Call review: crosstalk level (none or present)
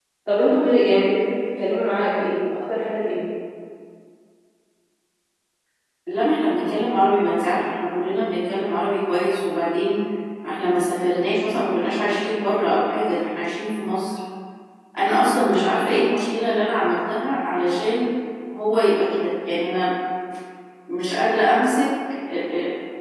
none